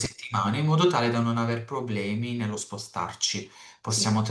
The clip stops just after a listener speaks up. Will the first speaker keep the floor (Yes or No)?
Yes